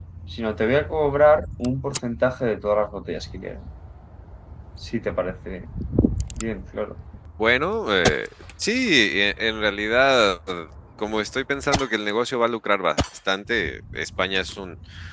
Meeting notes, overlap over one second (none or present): none